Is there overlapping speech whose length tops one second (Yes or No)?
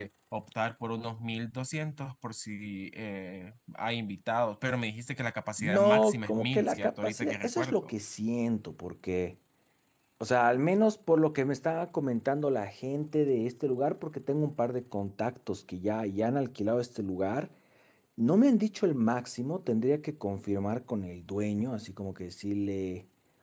Yes